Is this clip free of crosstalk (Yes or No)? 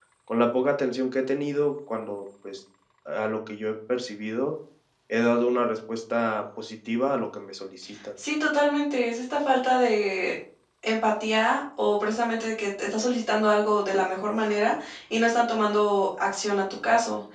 Yes